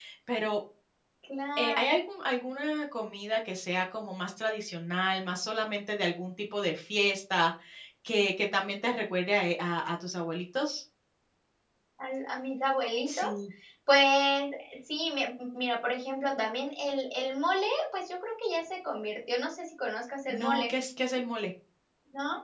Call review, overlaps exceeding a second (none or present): none